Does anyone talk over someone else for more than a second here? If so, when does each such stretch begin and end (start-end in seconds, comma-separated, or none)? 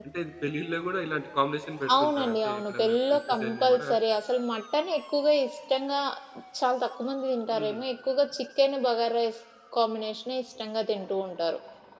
2.0-3.9